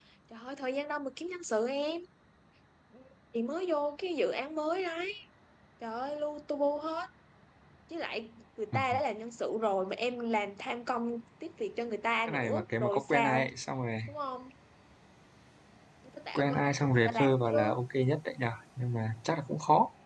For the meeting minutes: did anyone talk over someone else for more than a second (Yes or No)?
Yes